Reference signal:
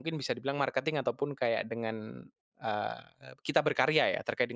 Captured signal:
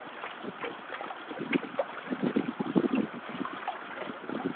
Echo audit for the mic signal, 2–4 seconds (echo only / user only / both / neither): neither